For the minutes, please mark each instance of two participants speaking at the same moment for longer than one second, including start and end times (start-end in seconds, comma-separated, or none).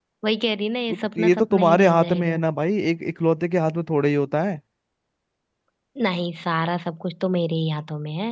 0.9-2.4